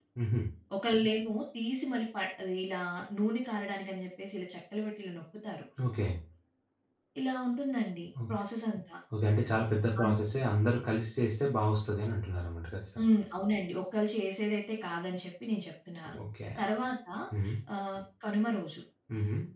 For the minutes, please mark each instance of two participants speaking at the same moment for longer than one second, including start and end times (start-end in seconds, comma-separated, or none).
none